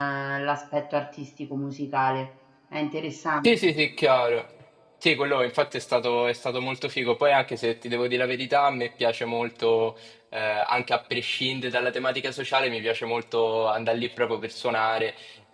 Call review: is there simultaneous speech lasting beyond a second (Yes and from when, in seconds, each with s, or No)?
No